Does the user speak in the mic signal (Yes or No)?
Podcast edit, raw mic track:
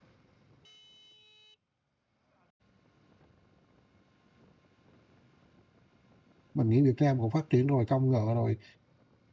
Yes